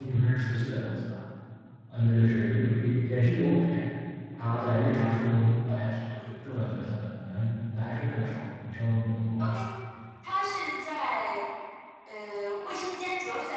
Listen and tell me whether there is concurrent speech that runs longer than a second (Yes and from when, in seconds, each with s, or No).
No